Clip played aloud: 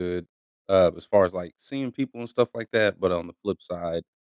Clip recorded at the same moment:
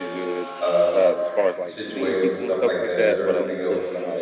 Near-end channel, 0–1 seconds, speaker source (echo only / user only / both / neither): both